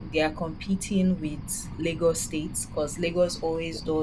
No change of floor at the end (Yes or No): Yes